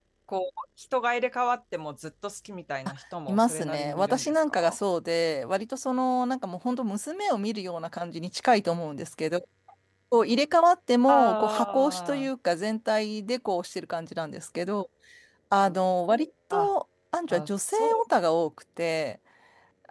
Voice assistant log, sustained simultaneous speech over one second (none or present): present